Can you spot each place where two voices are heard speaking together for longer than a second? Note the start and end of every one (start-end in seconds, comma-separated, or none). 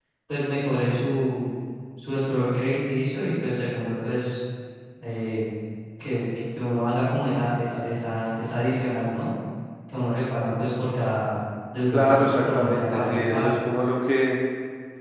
11.9-13.6